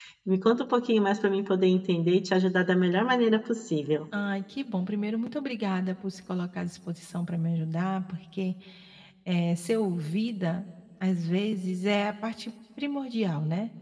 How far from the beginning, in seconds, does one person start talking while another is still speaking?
none

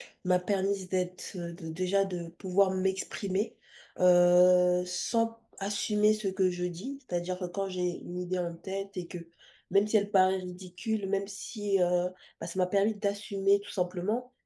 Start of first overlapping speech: none

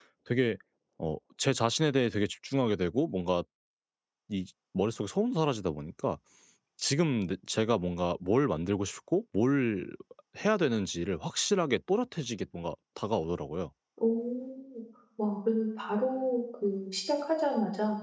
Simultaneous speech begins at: none

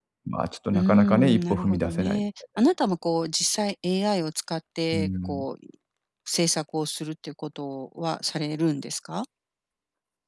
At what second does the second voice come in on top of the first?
0.7 s

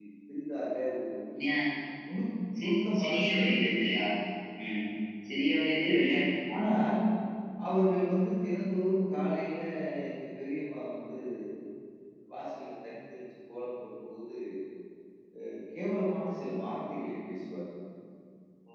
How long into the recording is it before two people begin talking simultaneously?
2.6 s

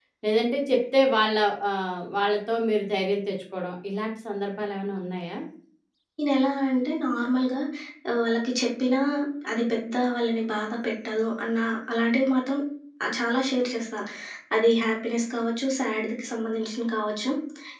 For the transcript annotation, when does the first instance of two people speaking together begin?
none

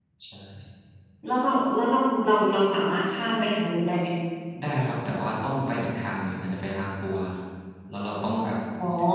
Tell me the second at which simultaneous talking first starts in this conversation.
none

